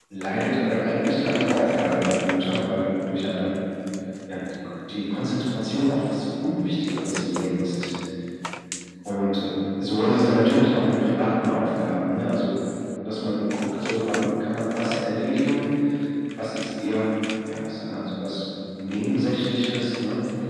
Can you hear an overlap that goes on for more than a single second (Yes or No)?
No